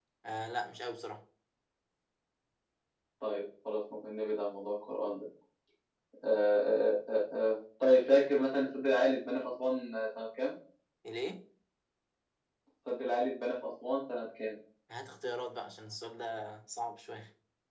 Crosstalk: none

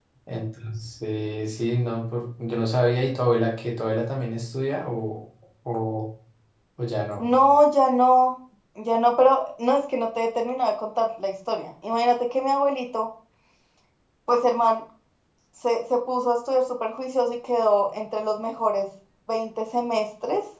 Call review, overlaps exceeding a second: none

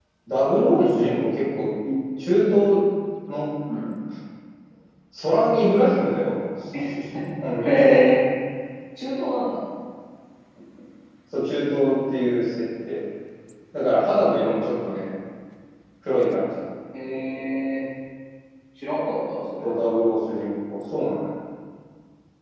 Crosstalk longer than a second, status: none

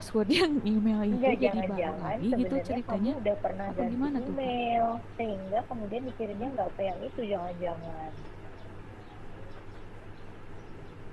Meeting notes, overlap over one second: present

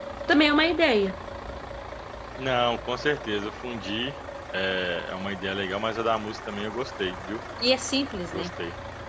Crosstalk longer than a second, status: none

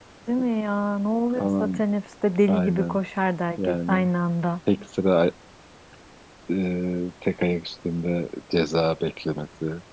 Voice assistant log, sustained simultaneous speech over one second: none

